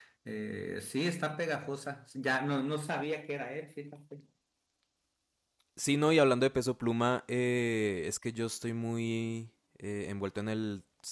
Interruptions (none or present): none